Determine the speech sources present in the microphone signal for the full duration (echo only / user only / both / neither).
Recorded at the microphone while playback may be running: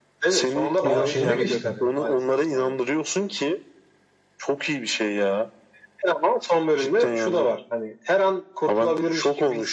both